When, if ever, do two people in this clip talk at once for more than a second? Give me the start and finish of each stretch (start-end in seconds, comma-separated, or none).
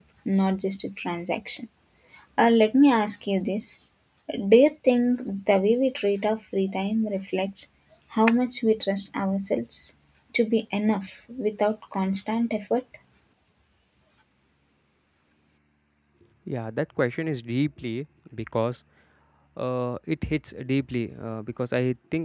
none